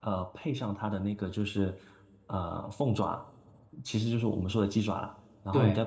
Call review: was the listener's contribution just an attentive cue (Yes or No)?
Yes